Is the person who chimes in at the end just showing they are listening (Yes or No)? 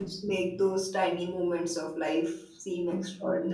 No